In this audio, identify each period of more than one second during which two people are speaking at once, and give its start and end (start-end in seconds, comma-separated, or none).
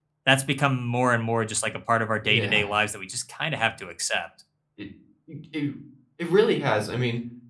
none